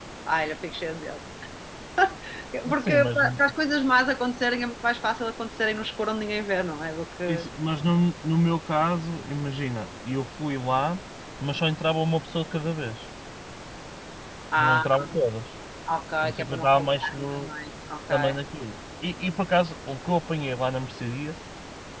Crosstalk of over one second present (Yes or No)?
Yes